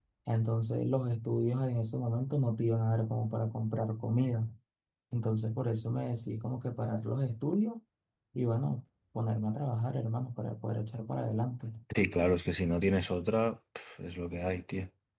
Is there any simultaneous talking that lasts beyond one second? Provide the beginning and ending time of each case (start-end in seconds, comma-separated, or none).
none